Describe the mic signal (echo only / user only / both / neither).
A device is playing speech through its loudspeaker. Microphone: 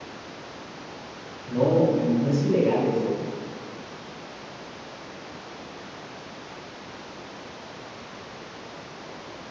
user only